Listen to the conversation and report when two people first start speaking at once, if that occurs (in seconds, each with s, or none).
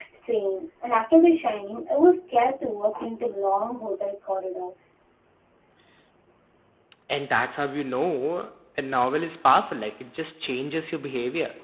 none